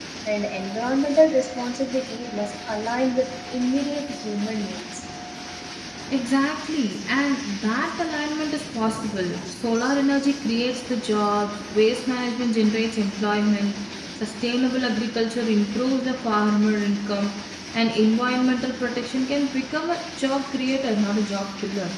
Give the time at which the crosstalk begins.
none

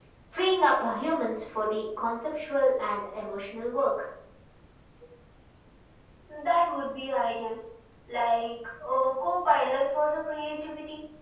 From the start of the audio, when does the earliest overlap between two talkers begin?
none

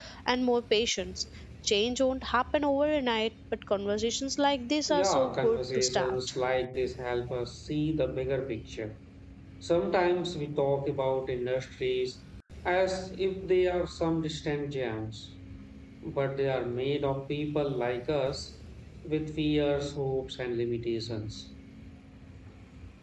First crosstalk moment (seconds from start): 4.9 s

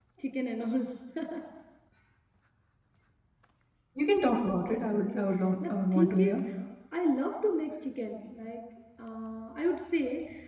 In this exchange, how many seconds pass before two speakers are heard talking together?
4.6 s

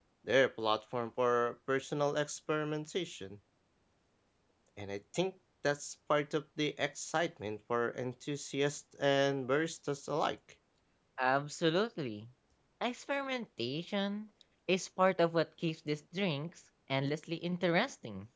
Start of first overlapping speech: none

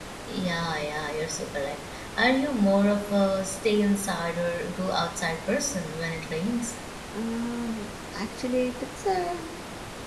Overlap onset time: none

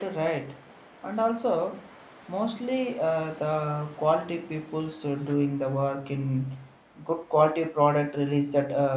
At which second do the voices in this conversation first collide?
none

